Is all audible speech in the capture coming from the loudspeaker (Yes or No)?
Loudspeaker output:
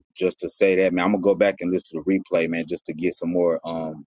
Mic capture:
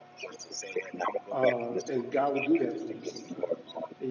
No